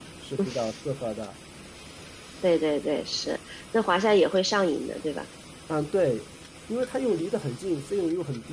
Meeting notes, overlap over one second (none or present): none